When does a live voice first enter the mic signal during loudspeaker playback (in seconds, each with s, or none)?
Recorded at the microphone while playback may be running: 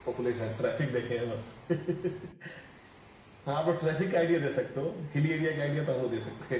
none